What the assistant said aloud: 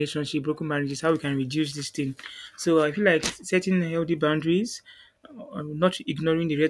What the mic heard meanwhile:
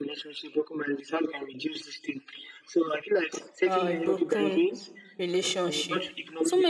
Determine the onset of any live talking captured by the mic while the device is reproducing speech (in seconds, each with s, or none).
3.6 s